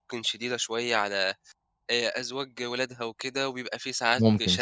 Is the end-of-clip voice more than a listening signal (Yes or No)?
No